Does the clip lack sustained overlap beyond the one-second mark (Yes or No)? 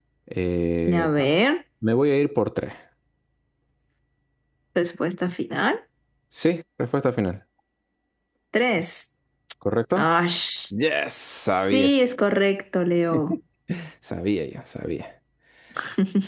Yes